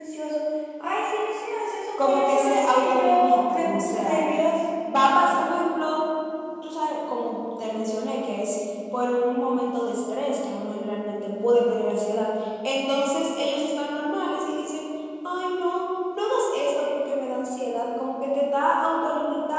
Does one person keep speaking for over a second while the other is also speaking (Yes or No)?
Yes